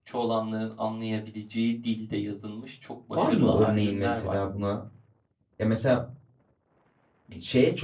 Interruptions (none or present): present